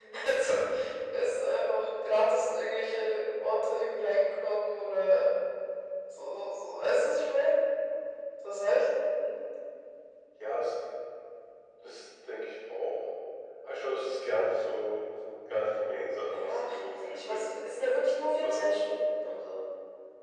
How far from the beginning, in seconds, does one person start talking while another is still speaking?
16 s

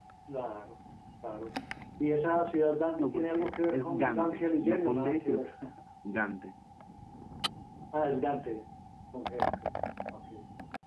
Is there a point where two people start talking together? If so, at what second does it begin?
3 s

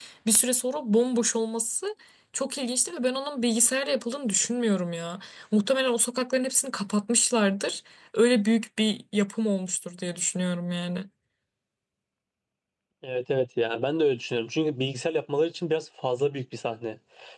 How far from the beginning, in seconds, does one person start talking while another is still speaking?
none

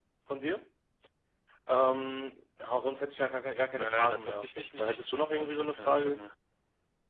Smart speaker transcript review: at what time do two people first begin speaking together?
4 s

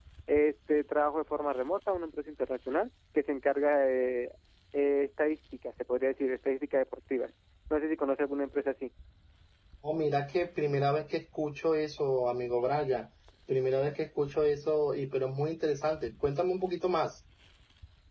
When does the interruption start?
none

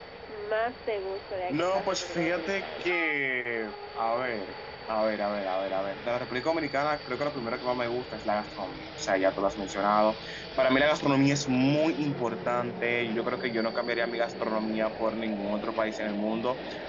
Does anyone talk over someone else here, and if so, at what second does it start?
1 s

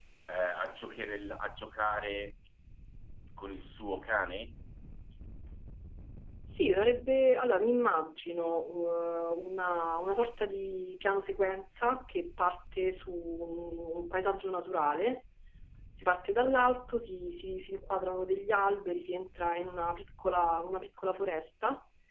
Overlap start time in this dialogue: none

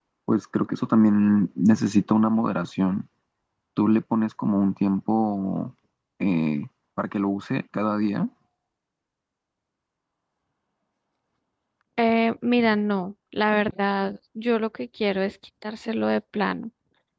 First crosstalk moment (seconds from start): none

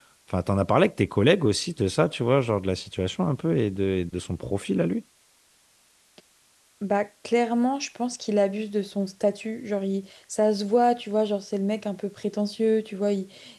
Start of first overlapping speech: none

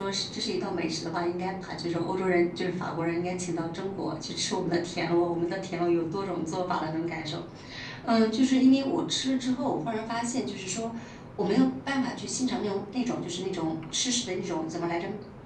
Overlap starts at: none

